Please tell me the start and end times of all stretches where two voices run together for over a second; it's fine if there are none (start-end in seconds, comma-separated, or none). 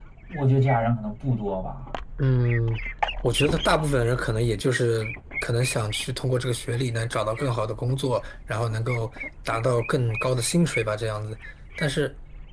none